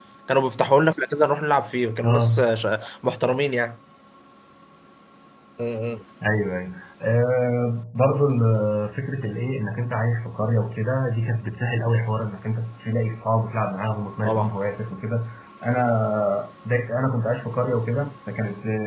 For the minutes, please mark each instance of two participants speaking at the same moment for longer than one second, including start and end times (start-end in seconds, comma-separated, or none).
none